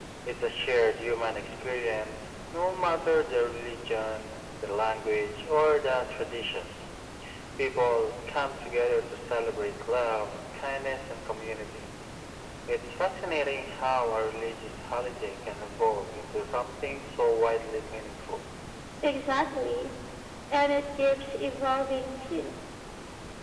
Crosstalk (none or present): none